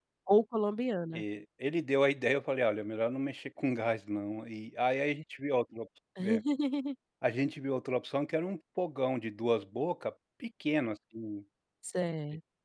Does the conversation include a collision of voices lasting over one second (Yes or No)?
No